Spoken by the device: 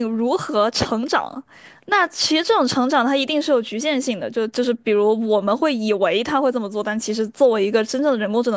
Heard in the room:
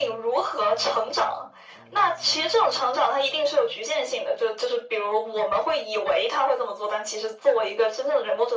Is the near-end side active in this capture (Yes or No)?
No